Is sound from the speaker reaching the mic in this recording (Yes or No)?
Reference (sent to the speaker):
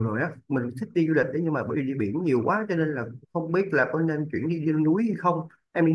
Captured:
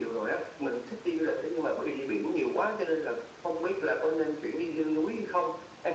Yes